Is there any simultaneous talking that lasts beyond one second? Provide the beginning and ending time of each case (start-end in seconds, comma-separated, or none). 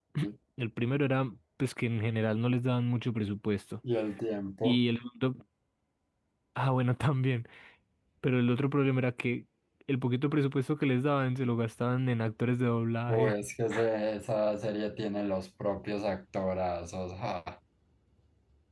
none